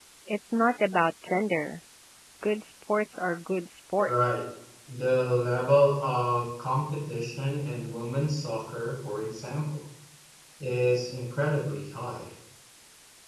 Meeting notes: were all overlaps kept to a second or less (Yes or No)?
Yes